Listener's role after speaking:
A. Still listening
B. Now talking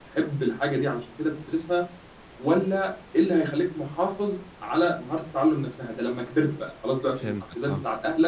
A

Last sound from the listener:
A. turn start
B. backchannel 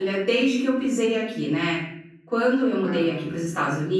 B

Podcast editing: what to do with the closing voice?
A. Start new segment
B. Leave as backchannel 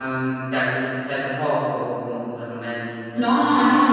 A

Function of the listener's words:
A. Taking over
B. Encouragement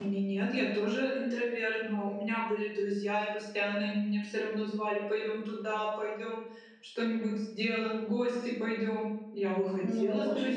A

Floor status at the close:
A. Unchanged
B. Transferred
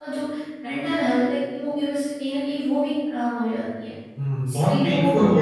B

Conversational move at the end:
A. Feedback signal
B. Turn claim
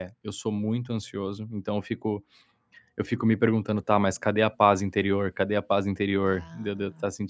A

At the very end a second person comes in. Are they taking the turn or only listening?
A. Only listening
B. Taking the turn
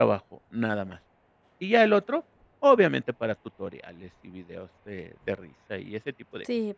B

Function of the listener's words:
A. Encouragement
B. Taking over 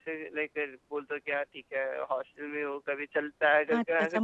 B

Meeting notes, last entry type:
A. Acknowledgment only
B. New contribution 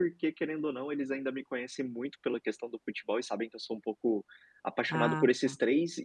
A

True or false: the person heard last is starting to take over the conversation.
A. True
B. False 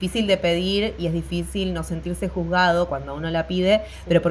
B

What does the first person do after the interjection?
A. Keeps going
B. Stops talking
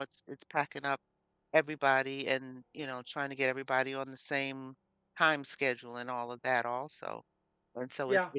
A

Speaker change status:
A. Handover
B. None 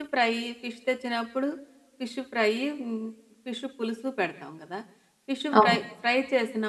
B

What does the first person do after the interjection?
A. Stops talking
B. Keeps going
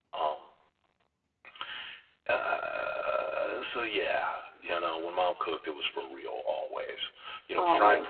B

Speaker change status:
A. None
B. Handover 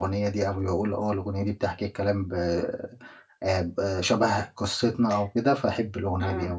B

